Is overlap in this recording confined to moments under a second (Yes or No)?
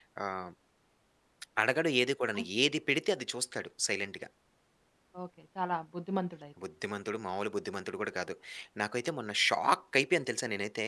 Yes